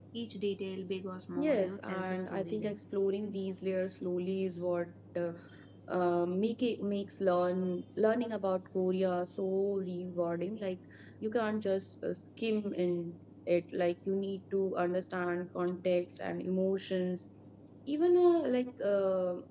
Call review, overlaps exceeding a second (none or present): present